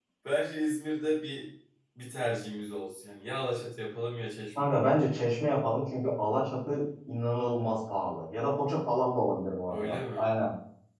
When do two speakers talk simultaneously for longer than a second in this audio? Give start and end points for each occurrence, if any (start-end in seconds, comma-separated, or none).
none